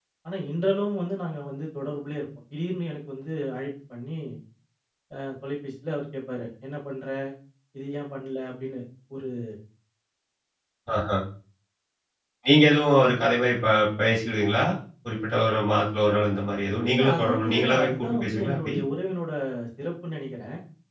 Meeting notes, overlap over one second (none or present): present